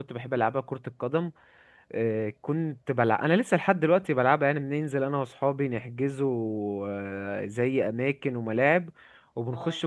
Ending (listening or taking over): listening